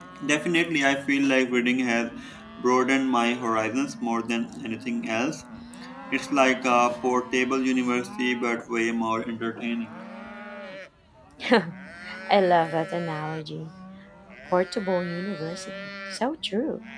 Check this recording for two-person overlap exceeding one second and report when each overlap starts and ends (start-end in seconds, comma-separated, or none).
none